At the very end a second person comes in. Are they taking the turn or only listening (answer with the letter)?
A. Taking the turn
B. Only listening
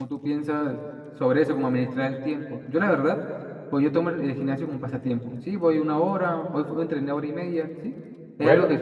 B